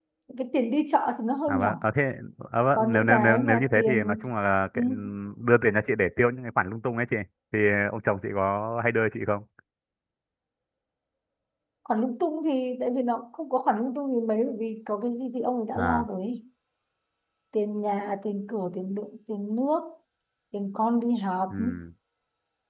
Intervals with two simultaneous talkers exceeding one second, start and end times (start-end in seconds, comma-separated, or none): 2.8-4.2